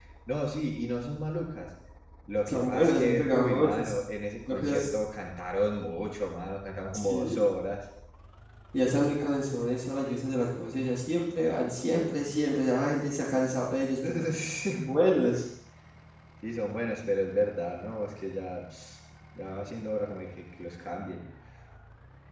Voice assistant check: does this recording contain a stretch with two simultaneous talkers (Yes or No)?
Yes